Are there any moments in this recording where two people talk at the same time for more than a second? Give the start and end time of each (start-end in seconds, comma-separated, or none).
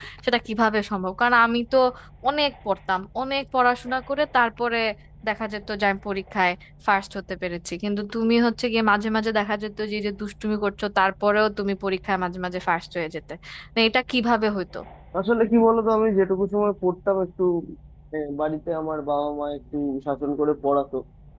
none